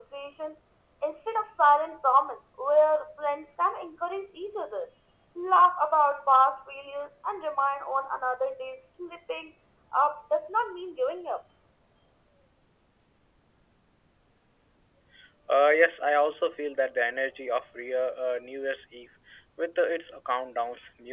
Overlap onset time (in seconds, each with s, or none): none